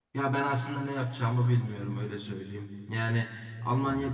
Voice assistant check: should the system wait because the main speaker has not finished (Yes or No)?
Yes